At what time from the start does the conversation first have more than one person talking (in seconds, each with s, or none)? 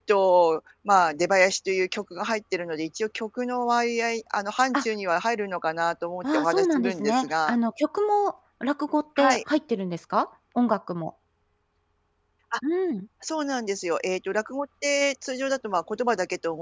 6.2 s